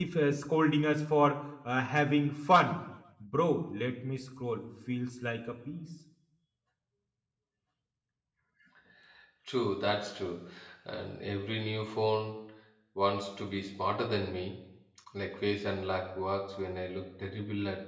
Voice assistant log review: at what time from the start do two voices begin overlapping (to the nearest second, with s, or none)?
none